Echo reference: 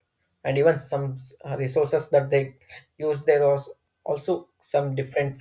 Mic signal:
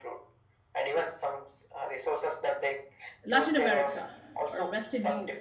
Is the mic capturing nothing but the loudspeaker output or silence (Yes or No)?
No